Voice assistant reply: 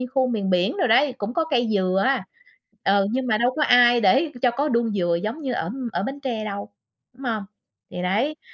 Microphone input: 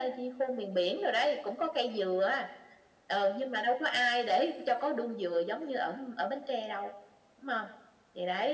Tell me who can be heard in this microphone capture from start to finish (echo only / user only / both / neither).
echo only